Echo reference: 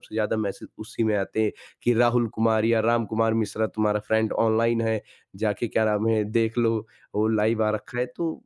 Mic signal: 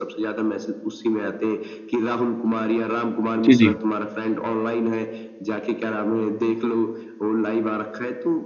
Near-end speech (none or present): present